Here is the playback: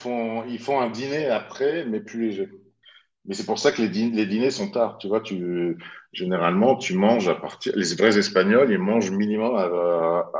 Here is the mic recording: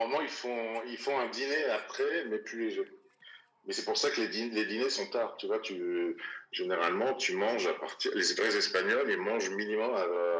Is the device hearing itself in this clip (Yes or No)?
Yes